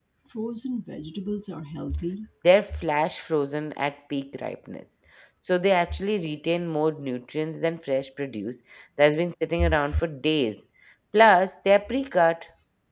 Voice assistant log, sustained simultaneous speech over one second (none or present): none